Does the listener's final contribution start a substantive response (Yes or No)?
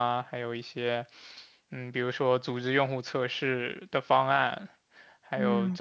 No